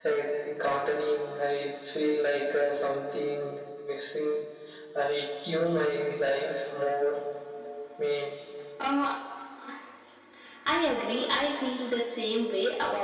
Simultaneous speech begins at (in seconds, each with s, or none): none